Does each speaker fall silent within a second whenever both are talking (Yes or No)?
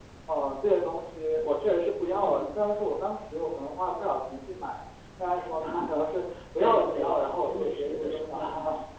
No